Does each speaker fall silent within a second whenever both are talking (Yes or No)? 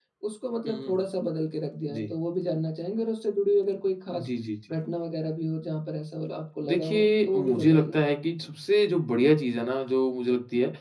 No